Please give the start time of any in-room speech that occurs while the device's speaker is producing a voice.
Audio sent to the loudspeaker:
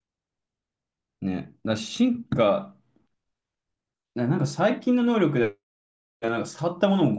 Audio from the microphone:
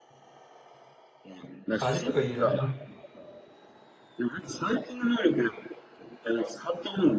1.8 s

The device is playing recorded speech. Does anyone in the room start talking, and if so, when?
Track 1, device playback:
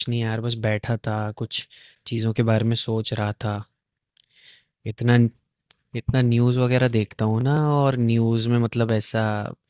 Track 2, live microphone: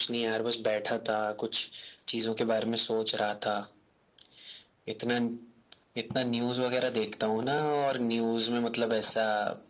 none

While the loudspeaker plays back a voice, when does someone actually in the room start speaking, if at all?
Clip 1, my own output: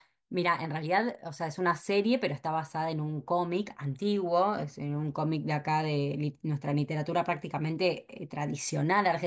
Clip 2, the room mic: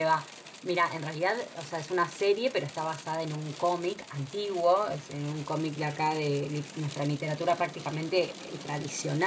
none

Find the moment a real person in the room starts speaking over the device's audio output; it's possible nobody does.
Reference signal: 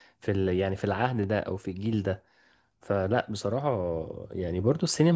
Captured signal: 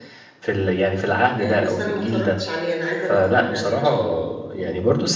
1.4 s

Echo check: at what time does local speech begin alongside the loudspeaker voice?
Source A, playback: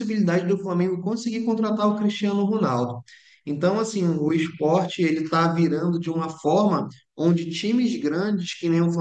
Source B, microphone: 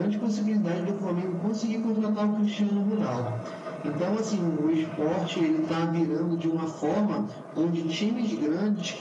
none

